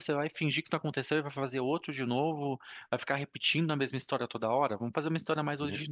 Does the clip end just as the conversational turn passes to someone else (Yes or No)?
No